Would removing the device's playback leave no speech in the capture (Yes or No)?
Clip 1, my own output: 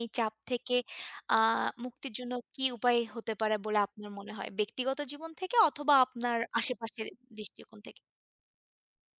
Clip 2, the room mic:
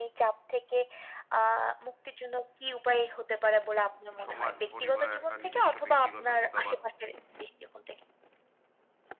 No